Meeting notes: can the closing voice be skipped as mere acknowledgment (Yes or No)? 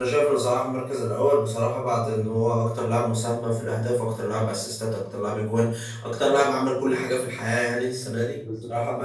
Yes